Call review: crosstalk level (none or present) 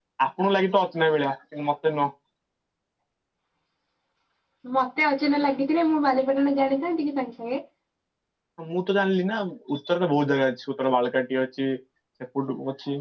none